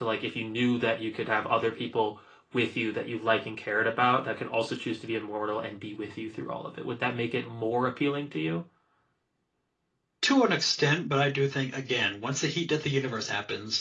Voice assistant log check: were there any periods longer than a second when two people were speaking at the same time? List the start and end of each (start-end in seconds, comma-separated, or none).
none